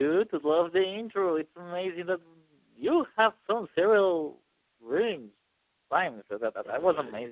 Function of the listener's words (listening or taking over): listening